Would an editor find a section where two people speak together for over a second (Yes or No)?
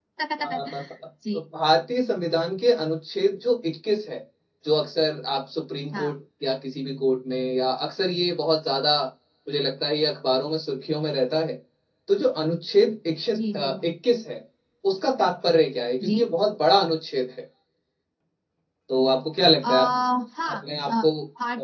No